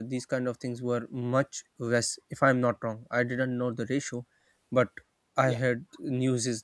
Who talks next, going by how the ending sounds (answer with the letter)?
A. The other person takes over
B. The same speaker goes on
B